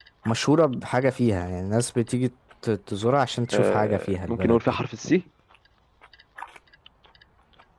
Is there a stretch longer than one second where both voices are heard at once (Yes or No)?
Yes